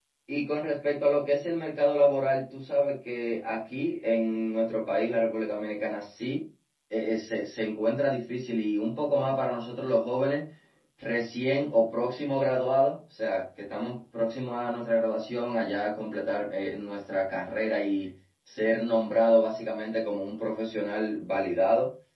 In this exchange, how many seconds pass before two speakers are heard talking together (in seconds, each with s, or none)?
none